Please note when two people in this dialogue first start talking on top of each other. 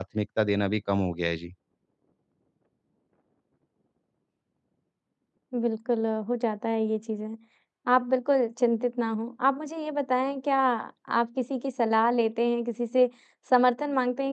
none

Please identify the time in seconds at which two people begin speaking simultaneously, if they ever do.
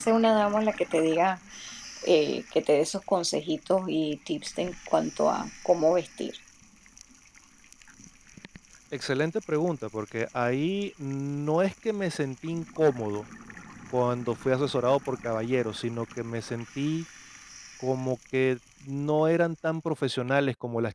none

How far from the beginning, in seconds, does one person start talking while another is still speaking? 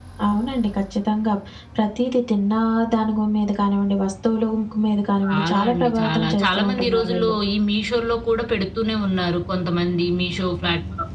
5.3 s

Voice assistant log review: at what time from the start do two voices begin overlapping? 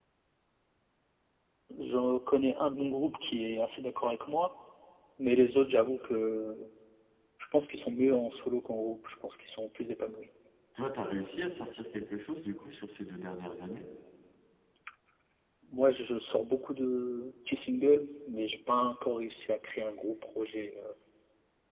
none

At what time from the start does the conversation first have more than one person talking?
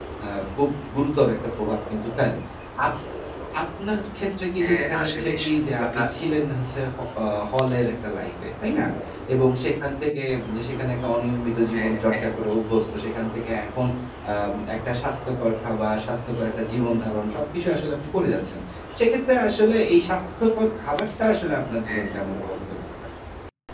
4.6 s

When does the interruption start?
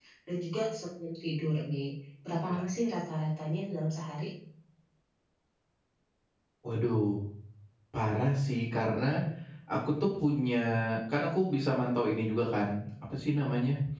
none

